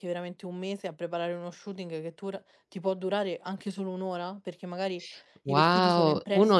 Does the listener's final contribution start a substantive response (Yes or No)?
Yes